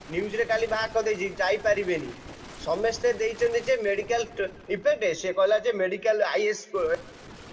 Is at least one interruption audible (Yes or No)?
No